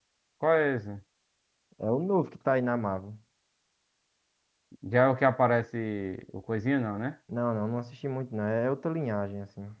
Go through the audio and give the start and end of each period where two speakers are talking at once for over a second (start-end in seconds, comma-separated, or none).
none